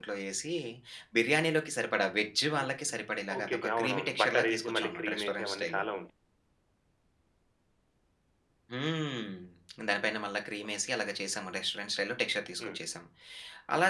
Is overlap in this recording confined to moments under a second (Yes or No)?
No